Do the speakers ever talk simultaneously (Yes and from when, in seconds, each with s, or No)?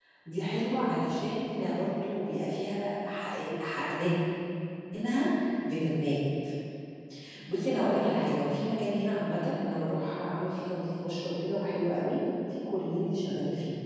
No